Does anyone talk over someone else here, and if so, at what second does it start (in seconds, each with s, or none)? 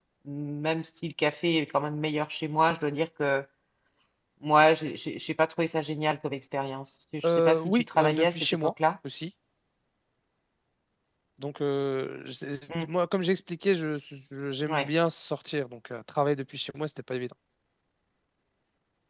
7.2 s